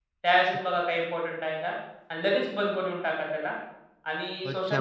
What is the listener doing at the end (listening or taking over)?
taking over